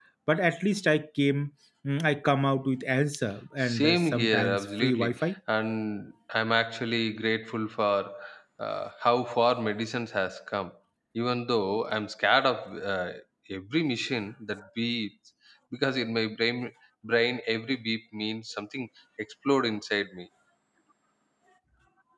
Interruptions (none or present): present